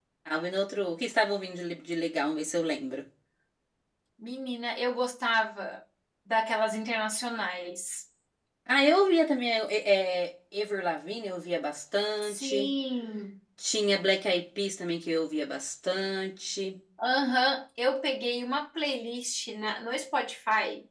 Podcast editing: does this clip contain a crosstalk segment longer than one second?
No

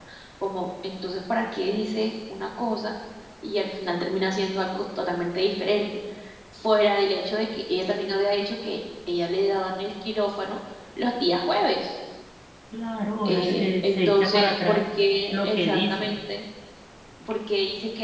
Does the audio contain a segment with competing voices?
Yes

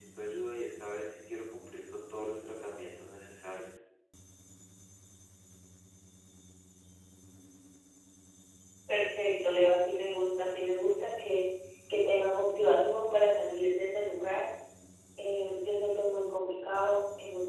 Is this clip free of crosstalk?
Yes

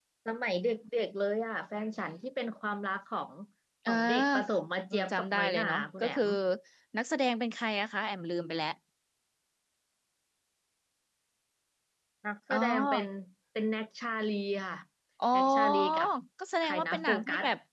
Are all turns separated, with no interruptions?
No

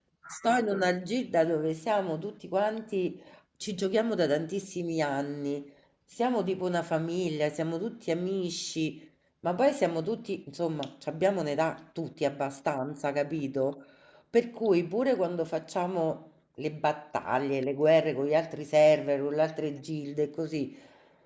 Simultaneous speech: No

